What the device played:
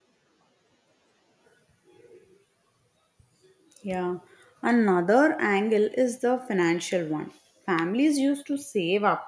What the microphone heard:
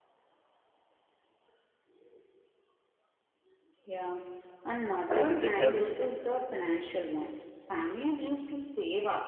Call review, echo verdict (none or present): present